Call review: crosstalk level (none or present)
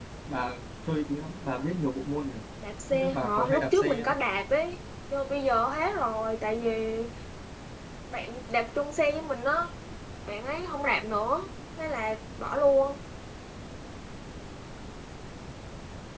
present